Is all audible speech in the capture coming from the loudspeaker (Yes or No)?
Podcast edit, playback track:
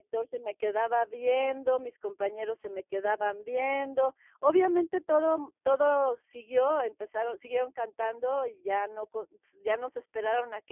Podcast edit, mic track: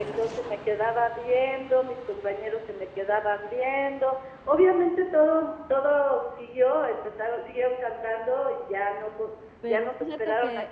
No